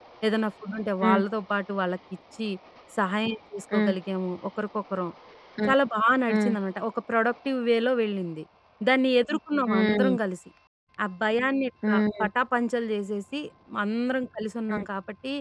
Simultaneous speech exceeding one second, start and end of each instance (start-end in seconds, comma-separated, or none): none